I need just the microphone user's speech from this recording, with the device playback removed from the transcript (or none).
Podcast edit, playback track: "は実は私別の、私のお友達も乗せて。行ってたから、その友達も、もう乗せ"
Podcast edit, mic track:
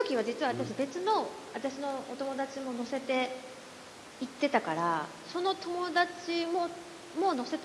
うん。